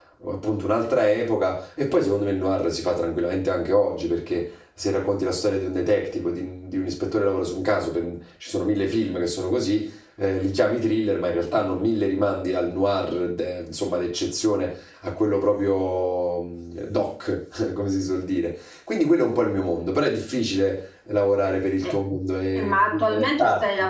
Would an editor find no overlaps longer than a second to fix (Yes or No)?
No